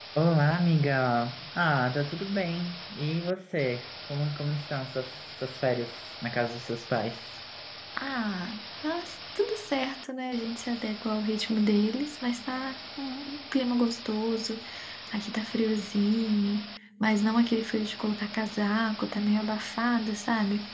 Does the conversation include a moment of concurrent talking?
No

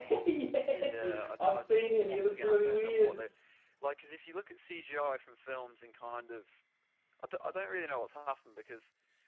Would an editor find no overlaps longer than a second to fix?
No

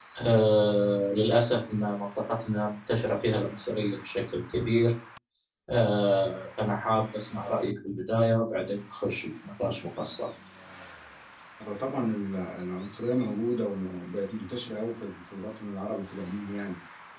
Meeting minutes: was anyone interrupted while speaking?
No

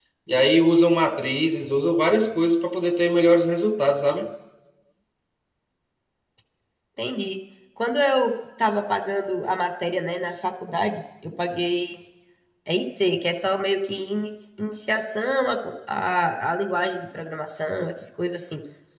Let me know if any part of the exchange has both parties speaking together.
No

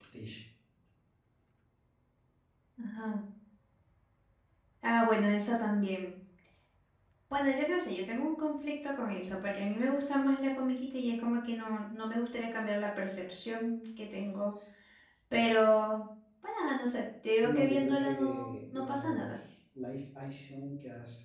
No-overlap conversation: No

